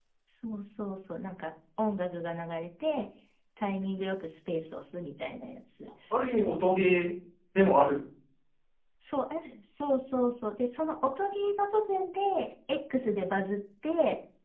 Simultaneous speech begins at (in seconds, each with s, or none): none